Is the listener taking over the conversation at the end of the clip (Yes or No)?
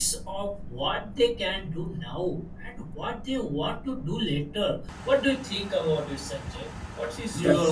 Yes